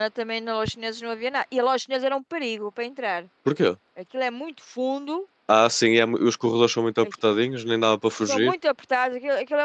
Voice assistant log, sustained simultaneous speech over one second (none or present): none